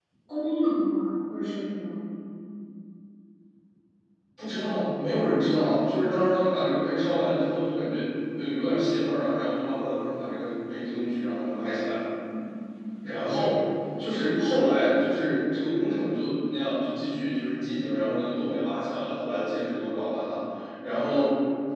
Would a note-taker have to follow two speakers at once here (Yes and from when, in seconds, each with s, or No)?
No